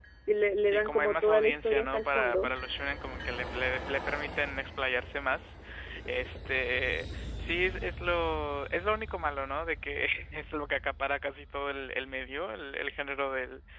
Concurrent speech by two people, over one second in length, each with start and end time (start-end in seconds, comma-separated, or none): 0.6-2.5